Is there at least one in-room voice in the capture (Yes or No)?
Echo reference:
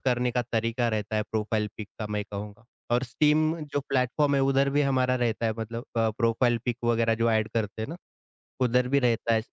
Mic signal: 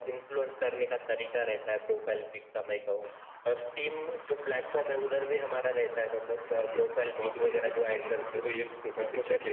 Yes